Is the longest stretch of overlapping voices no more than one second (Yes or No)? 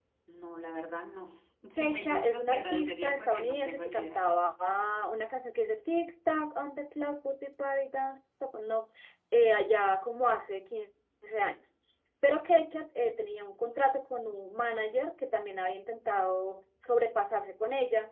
No